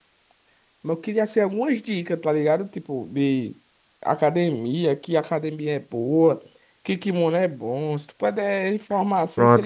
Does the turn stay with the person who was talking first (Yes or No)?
No